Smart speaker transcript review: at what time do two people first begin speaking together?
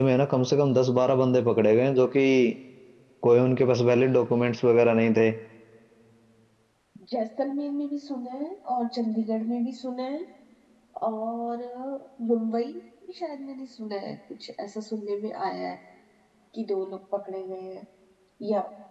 none

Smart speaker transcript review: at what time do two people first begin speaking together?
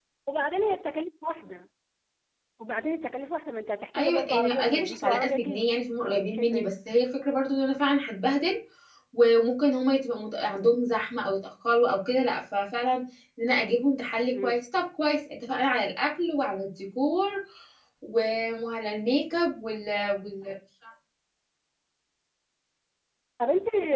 4 s

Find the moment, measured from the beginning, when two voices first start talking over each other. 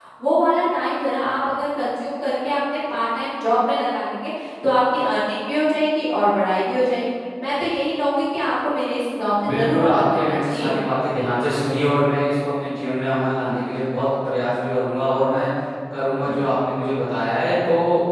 9 s

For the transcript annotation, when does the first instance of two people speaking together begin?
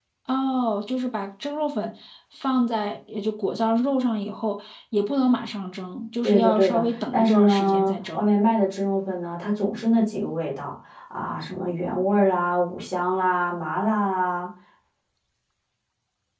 6 s

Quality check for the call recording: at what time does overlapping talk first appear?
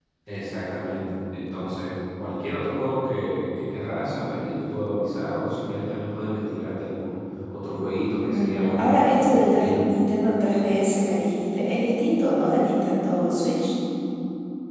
8 s

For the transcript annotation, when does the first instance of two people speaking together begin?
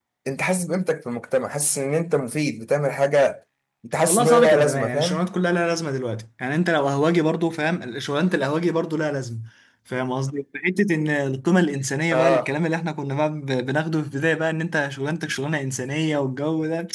4 s

